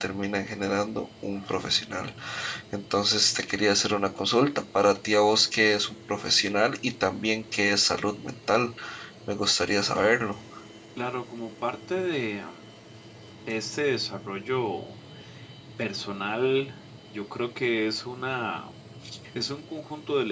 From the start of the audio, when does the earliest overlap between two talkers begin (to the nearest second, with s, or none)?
none